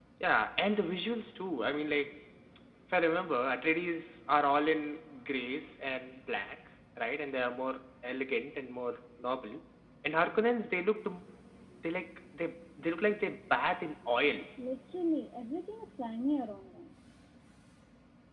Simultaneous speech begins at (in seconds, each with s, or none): none